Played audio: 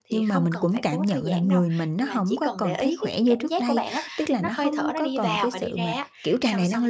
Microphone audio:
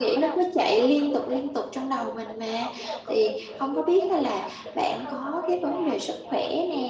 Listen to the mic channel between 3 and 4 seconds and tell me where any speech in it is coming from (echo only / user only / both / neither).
both